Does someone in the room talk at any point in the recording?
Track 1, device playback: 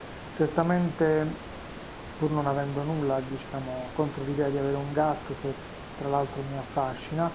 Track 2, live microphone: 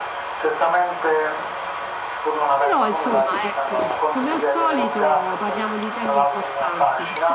Yes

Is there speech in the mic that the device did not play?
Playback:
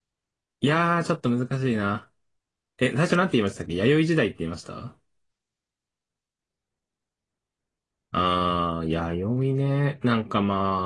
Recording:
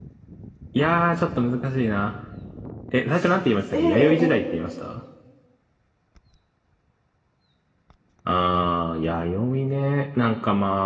Yes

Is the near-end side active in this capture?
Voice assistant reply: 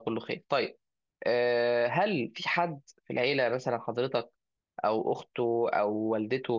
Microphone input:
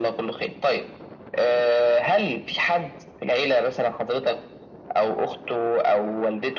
No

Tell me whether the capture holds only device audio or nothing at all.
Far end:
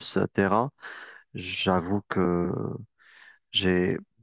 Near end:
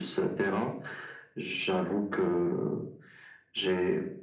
Yes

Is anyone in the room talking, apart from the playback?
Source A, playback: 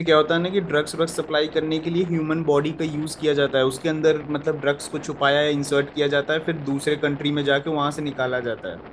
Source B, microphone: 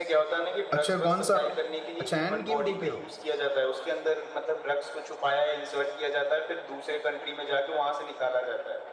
Yes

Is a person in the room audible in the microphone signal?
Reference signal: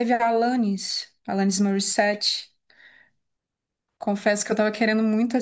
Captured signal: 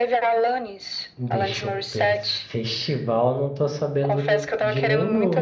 Yes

